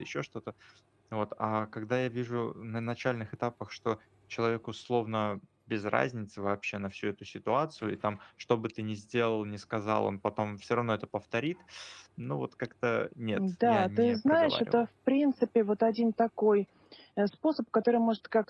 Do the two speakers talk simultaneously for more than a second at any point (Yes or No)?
Yes